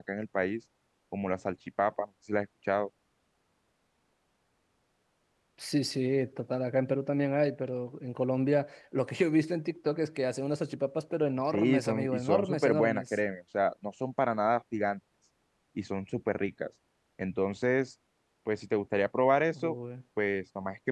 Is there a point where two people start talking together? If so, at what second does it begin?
12 s

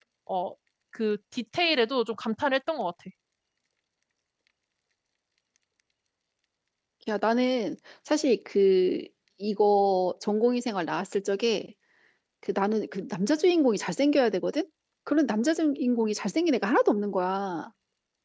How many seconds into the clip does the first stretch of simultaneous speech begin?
none

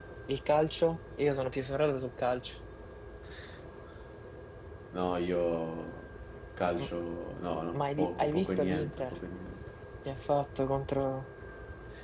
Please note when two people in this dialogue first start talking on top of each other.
8 s

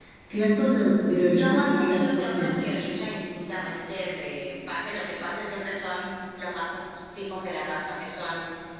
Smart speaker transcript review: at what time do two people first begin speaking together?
1 s

